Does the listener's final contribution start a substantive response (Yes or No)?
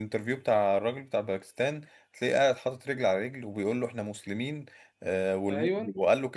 No